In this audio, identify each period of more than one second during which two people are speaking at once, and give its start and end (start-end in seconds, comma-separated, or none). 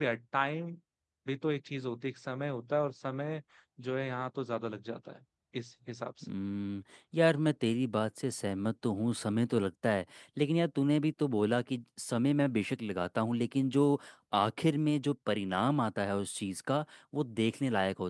none